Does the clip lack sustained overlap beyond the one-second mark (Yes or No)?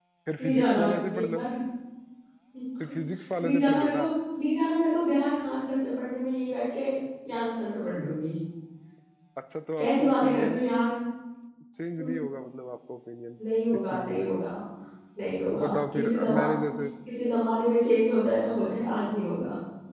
No